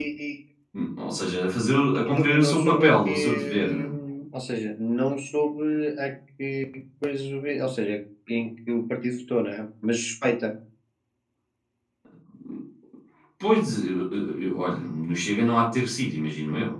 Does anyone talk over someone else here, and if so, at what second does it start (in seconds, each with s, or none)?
1.7 s